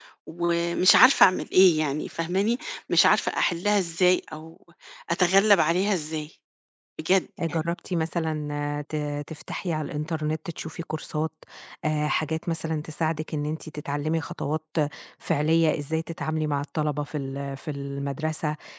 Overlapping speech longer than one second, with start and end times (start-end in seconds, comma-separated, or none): none